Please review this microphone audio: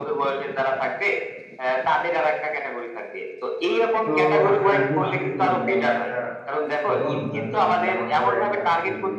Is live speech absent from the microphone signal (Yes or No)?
No